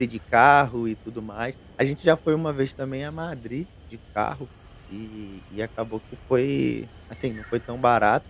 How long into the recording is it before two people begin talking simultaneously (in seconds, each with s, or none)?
none